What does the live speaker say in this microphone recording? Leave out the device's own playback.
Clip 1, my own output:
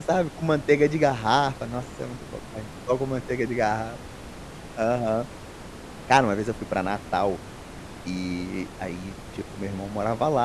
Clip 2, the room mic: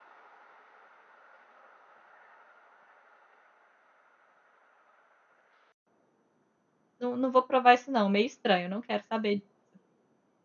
não não vou provar isso não, meio estranho, não quero saber disso".

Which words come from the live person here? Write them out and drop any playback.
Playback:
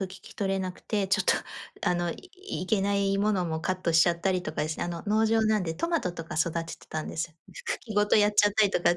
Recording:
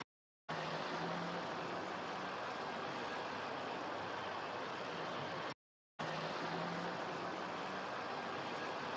none

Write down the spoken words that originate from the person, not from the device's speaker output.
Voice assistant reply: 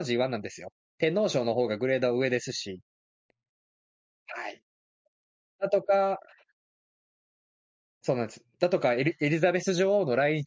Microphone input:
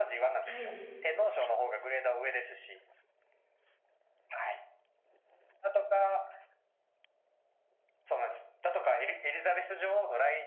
はい、ですね。

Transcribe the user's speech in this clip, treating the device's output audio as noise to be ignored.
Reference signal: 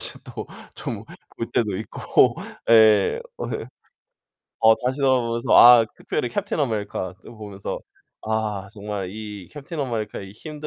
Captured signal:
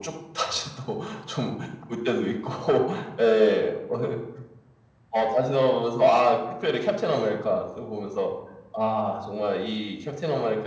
none

